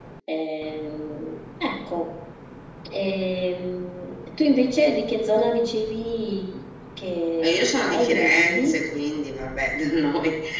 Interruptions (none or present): present